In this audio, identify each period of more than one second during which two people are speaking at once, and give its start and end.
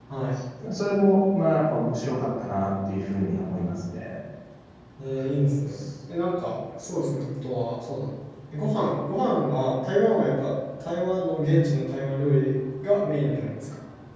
none

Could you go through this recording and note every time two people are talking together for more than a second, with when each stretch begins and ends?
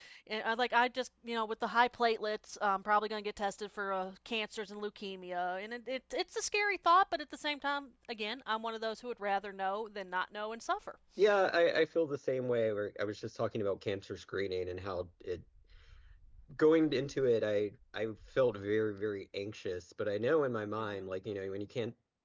none

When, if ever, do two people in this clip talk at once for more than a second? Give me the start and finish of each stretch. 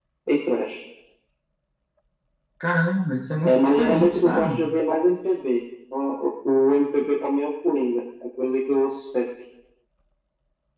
3.4-4.6

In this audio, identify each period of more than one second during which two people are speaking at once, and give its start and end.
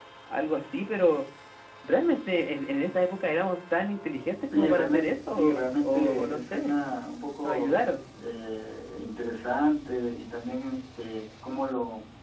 4.6-6.7

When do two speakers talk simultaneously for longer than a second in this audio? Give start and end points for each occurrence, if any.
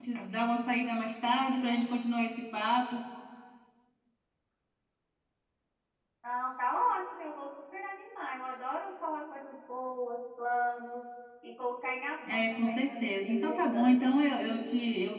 12.3-14.0

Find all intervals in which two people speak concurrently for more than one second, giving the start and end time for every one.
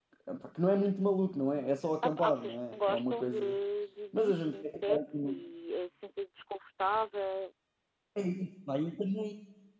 2.0-3.5, 4.1-5.4

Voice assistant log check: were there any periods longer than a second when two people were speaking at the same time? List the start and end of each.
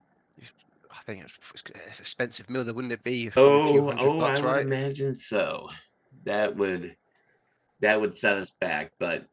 3.4-4.7

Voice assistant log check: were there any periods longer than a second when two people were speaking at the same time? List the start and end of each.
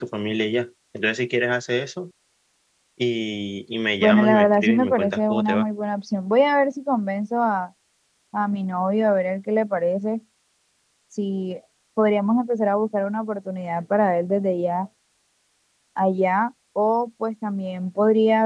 4.0-5.6

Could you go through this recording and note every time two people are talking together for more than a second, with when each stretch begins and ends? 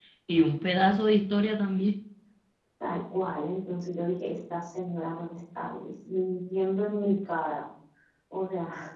none

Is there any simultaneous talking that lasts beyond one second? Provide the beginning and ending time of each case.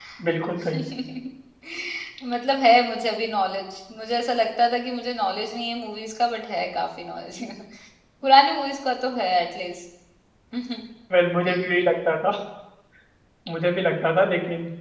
none

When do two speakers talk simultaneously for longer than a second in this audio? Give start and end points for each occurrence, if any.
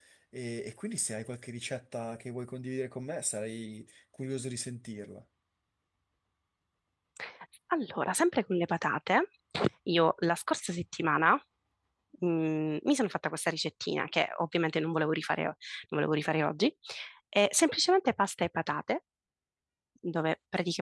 none

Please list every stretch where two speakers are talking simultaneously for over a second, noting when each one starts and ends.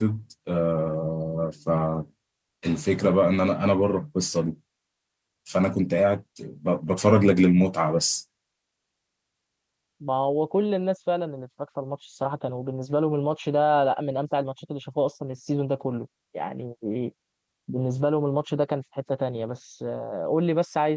none

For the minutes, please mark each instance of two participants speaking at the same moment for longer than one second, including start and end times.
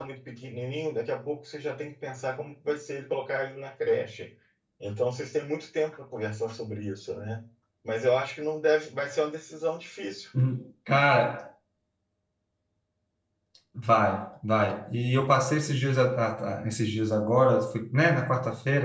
none

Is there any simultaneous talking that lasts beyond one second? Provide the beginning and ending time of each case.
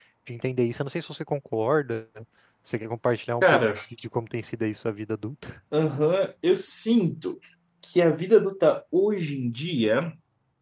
none

